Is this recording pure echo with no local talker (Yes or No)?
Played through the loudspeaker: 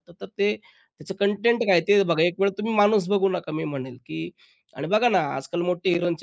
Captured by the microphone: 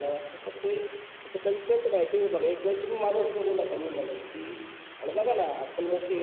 Yes